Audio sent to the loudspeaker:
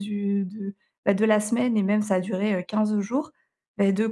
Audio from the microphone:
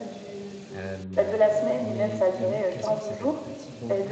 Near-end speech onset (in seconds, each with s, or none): 0.7 s